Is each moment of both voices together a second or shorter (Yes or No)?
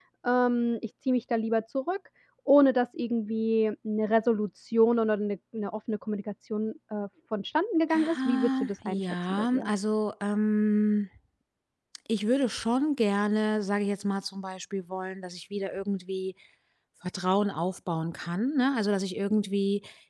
No